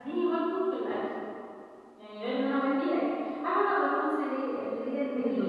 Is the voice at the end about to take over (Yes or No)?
No